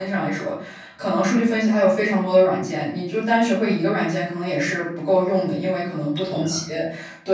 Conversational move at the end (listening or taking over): listening